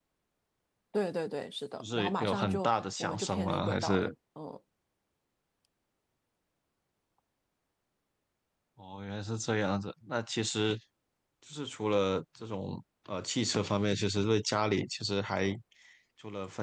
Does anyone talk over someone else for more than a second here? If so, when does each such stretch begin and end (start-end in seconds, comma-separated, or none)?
1.8-4.1